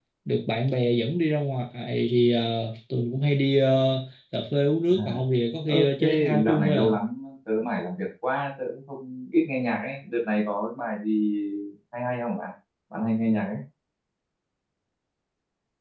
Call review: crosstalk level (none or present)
present